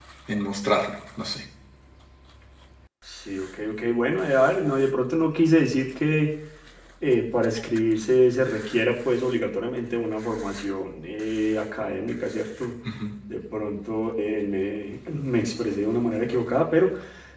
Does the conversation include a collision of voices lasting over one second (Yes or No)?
No